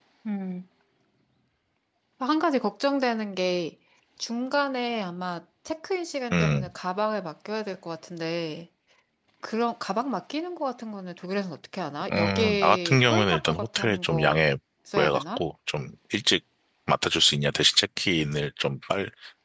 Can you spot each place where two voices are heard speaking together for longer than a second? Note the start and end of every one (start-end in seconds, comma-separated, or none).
12.1-14.4